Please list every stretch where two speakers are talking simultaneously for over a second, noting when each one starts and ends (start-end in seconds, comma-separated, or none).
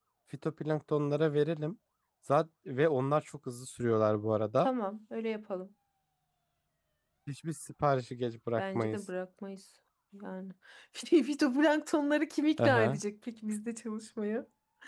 none